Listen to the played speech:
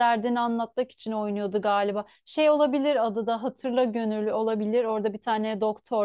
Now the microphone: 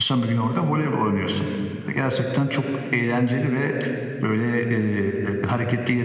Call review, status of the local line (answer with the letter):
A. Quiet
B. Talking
B